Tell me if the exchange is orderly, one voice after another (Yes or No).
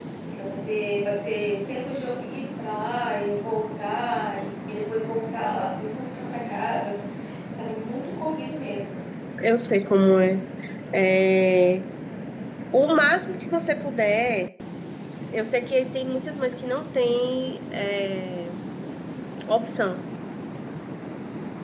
Yes